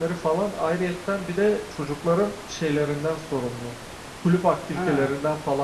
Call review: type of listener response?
listening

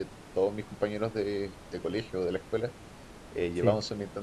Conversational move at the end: listening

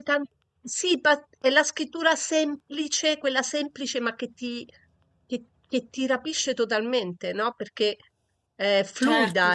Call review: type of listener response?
listening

